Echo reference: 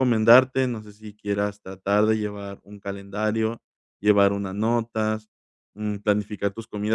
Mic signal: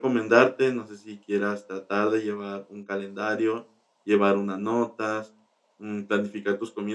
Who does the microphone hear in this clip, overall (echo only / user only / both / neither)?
echo only